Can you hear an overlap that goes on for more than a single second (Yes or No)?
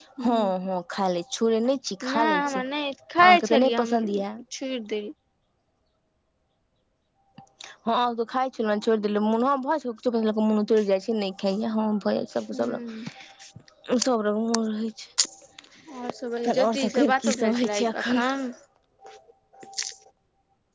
Yes